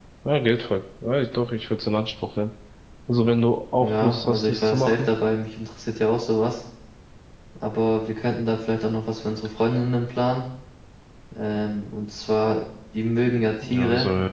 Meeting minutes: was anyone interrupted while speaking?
Yes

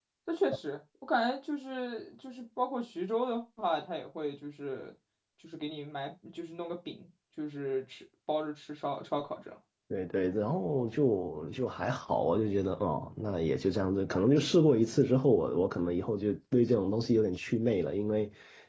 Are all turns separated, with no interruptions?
Yes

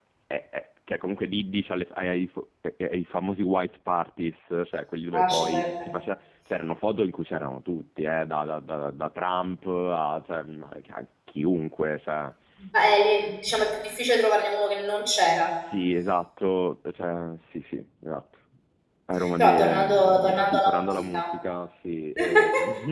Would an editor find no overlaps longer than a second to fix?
No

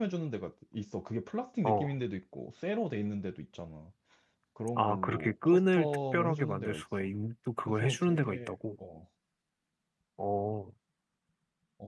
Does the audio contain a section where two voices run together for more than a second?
Yes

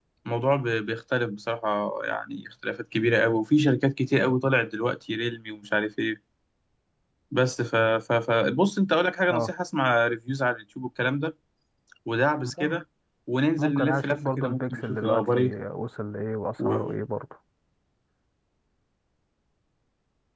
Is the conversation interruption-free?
No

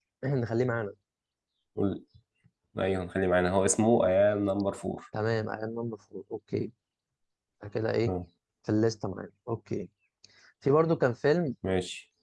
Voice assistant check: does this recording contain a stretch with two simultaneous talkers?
No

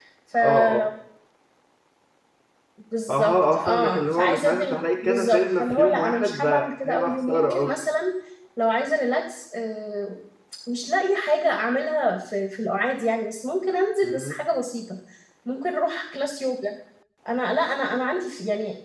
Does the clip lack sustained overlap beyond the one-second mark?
No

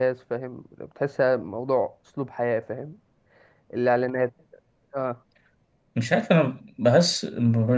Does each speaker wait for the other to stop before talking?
Yes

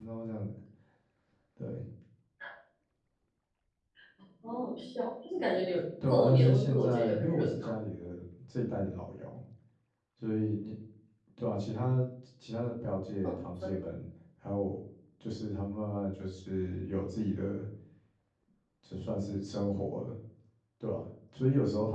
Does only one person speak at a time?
No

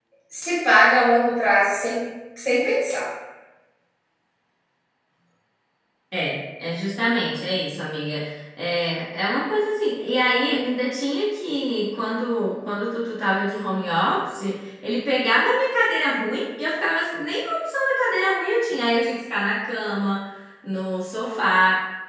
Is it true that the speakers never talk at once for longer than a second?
Yes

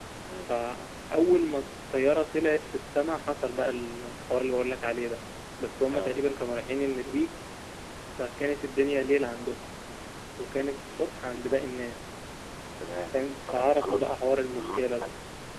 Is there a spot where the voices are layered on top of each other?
Yes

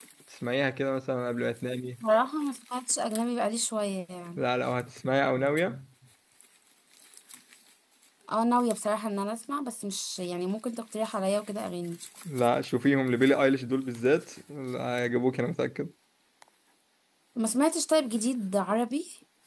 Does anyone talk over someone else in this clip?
No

